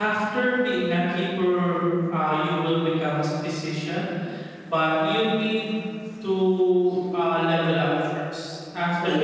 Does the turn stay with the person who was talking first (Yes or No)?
Yes